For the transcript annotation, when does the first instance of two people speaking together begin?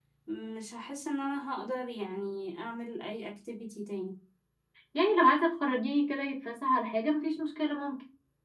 none

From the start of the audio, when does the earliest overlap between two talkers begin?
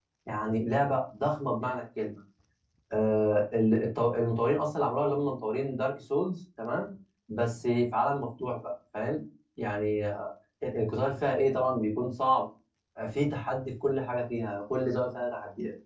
none

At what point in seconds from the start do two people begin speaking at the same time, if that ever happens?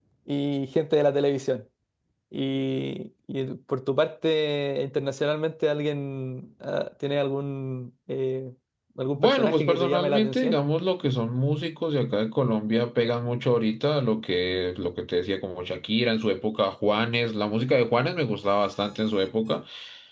9 s

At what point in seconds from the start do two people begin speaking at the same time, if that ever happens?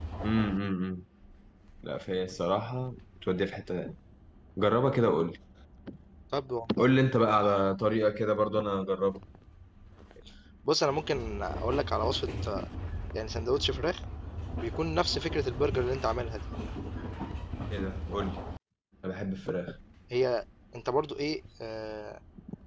none

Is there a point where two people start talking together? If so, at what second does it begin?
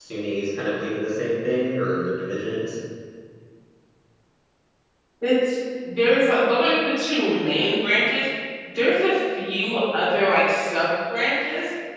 none

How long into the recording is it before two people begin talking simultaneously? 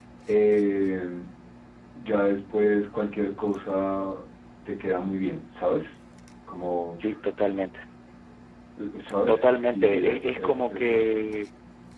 9 s

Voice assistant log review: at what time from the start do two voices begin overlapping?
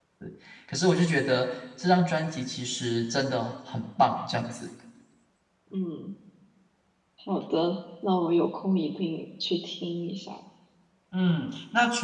none

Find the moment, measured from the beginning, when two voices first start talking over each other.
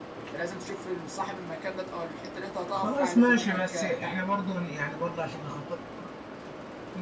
3 s

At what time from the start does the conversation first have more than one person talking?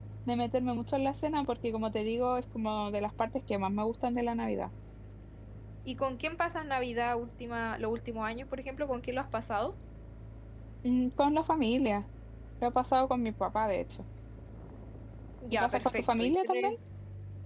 16 s

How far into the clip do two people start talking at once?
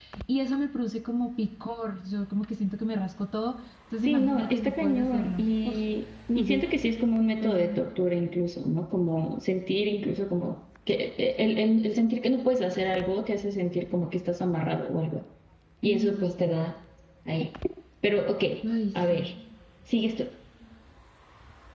4 s

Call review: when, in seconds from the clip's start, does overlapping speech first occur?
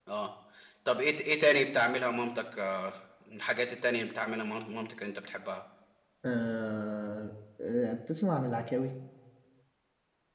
none

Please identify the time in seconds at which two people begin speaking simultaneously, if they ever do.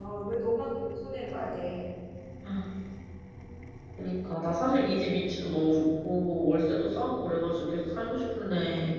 none

